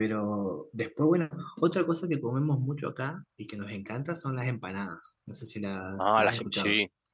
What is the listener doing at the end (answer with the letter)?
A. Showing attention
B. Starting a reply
B